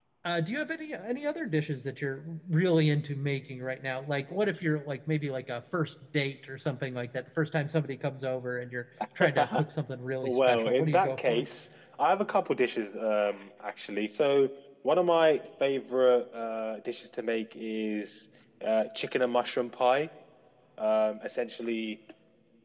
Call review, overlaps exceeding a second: present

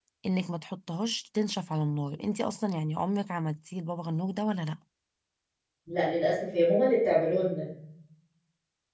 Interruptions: none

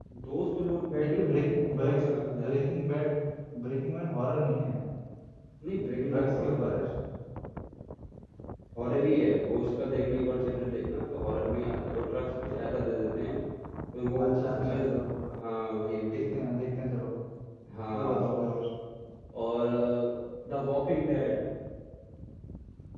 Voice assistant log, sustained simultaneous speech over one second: present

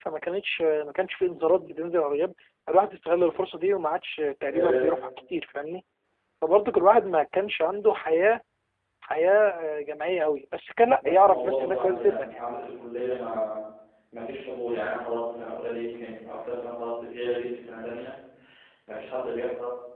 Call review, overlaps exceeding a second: present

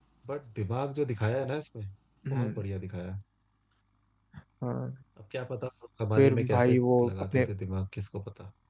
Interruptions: present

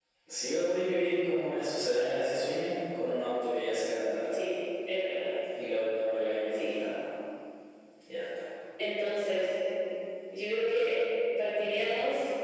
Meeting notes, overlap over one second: none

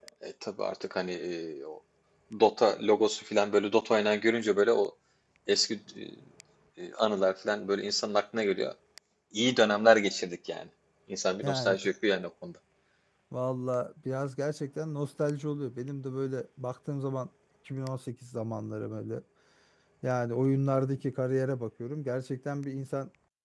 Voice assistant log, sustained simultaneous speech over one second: none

